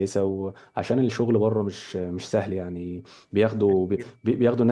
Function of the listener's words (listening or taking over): listening